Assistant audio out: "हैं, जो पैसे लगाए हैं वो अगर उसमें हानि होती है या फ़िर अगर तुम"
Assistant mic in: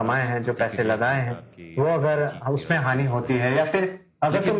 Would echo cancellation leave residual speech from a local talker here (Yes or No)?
Yes